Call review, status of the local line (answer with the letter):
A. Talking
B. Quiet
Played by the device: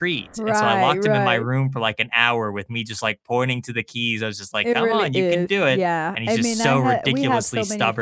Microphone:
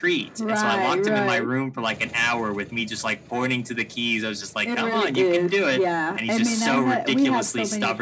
B